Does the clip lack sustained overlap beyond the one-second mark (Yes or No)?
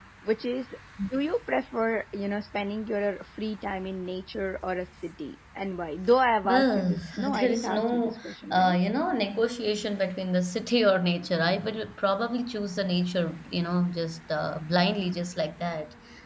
No